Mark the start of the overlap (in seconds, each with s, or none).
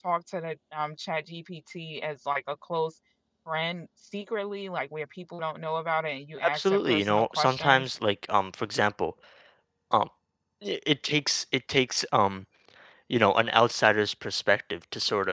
6.4 s